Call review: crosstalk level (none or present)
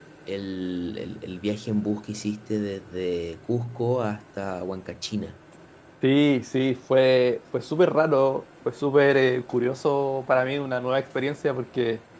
none